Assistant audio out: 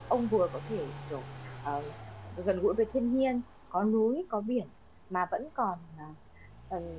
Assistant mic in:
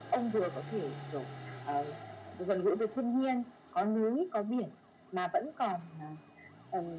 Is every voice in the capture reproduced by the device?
Yes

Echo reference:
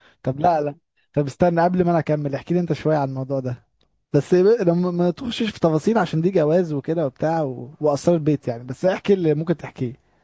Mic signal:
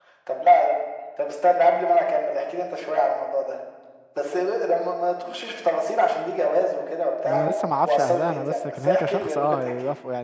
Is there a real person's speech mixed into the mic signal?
Yes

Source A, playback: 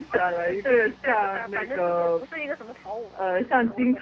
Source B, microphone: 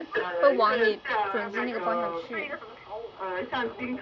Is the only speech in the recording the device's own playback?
No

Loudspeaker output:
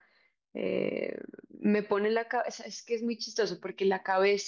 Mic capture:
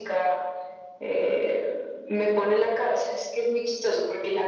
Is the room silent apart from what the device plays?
Yes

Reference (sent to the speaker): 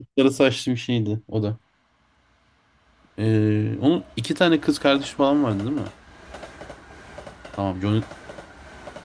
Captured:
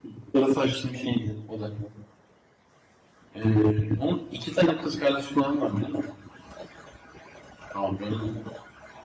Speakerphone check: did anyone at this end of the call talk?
No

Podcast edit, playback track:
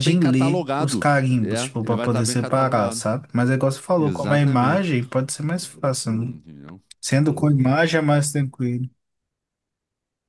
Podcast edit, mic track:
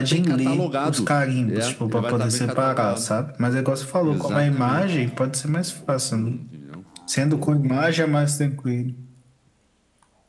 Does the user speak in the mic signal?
No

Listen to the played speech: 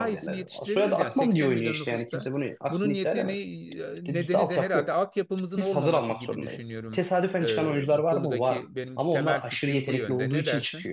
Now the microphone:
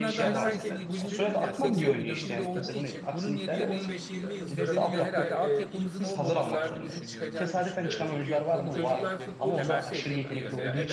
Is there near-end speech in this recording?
Yes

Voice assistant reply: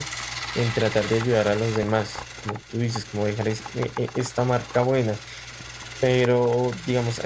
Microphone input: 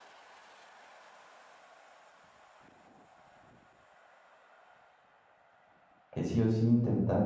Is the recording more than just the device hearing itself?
Yes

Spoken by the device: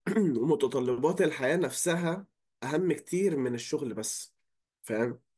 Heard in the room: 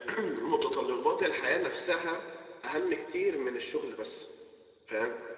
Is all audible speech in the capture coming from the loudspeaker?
Yes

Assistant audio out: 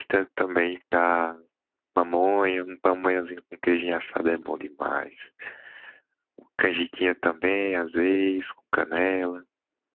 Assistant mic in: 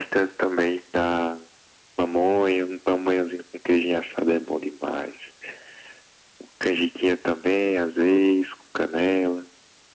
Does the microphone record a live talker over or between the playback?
No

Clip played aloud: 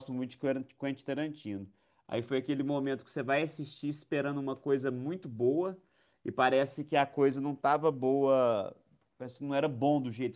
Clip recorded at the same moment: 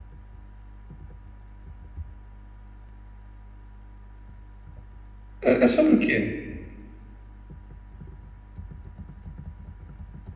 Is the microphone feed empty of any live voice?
No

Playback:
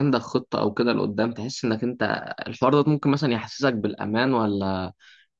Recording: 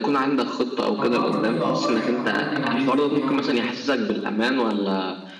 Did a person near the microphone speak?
Yes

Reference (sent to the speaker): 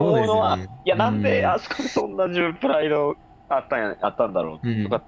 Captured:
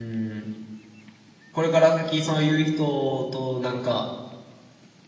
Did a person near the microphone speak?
Yes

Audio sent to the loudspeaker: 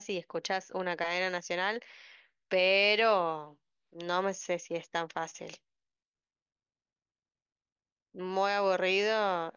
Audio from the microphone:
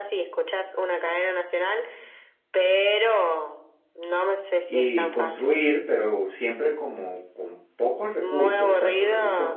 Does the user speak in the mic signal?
Yes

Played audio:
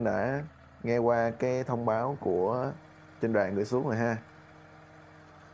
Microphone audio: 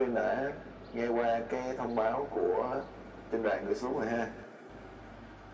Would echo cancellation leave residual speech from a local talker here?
No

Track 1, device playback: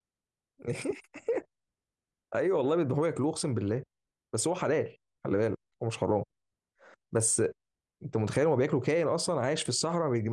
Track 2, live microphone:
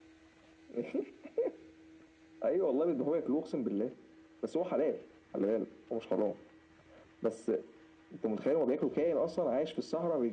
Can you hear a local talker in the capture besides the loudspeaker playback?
No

